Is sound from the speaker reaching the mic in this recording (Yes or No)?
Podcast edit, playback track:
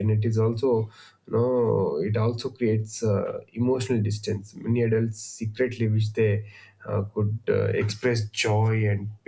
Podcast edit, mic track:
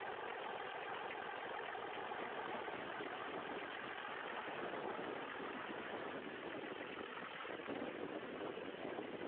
No